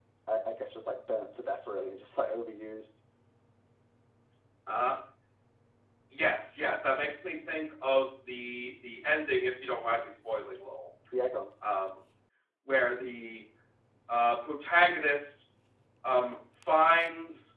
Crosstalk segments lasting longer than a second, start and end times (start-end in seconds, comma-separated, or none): none